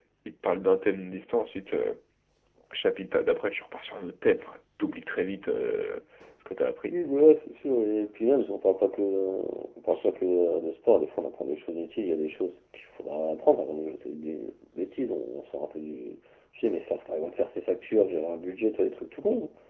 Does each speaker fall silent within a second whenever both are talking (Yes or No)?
Yes